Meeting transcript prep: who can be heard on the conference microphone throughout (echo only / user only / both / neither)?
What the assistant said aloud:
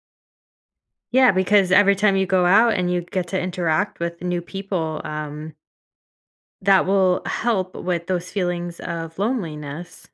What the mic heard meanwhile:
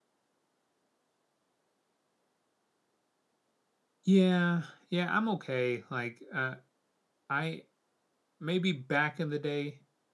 user only